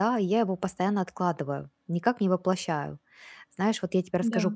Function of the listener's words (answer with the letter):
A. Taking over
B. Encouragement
B